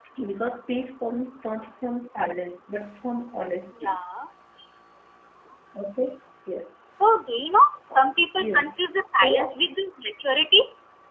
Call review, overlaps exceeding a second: none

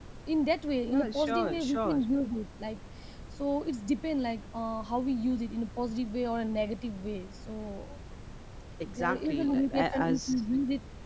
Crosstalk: present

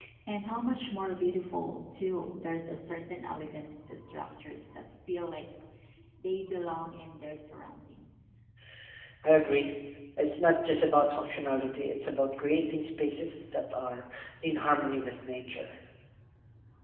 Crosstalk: none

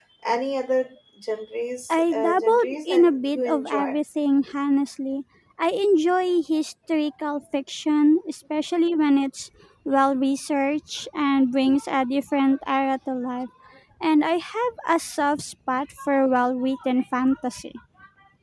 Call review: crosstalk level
present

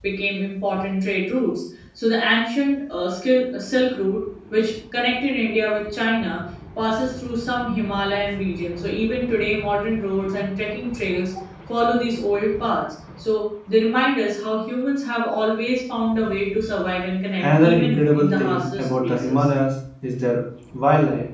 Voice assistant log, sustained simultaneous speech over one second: present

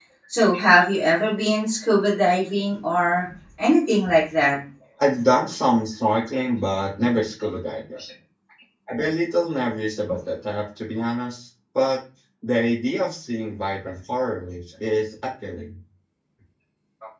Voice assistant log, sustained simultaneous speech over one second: none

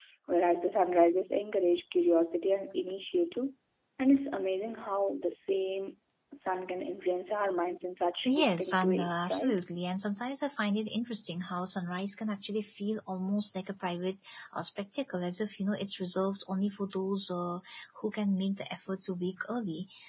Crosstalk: present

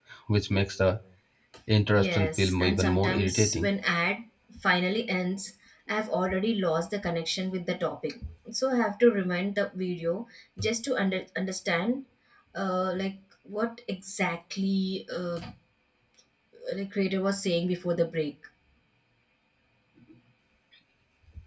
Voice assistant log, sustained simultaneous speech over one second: present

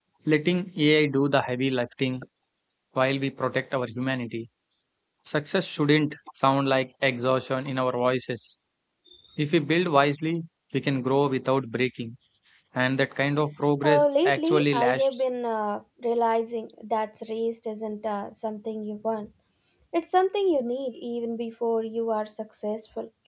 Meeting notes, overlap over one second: present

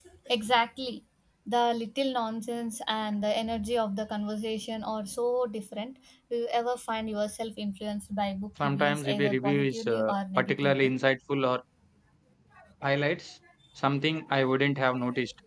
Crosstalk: present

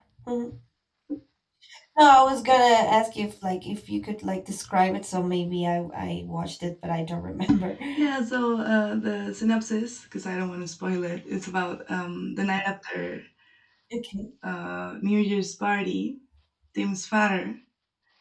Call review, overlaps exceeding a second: none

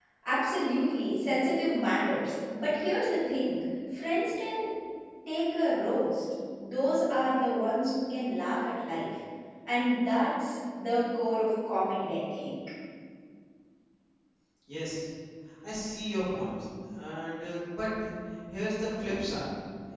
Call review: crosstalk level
none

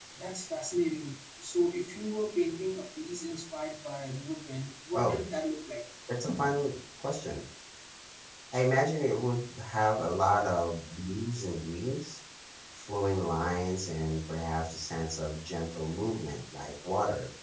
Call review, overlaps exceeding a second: none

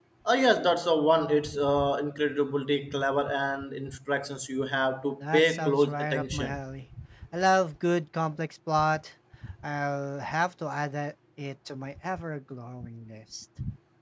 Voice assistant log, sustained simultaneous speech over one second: present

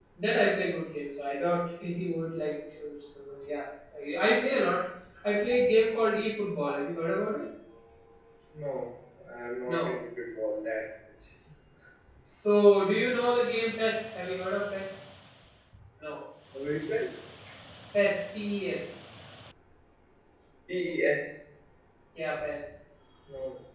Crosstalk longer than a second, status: none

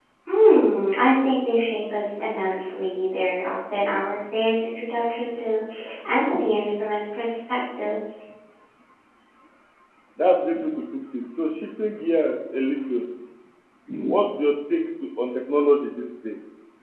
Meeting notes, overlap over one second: none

